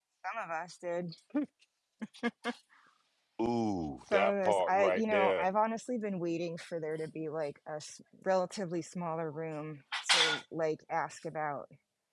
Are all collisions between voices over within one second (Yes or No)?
No